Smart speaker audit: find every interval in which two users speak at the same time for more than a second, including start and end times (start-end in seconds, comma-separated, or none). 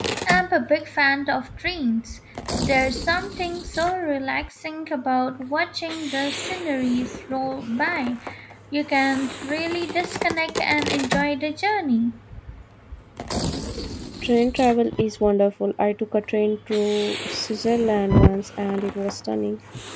none